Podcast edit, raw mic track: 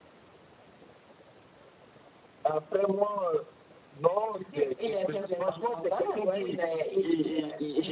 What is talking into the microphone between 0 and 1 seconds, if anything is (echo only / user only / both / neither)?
neither